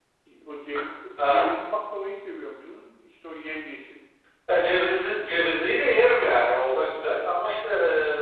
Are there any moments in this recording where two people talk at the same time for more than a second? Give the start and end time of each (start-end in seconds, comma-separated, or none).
none